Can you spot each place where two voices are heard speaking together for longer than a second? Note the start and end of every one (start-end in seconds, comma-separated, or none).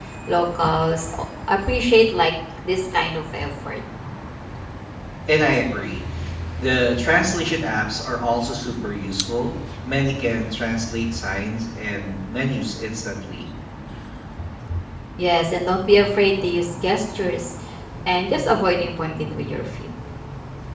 none